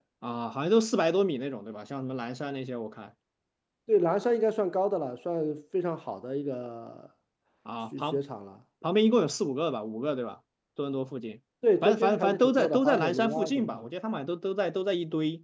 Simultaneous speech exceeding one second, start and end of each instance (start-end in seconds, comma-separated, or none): 11.8-13.9